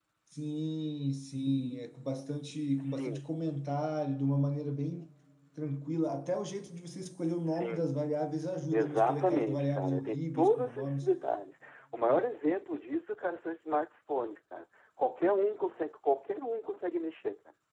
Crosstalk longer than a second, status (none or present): present